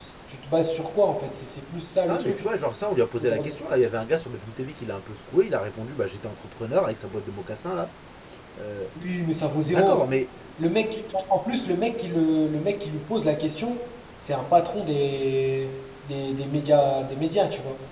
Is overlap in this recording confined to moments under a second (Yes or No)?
Yes